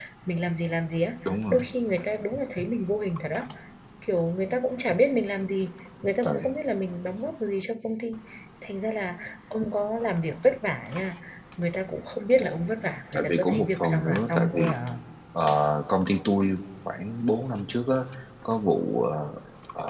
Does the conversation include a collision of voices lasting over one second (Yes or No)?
Yes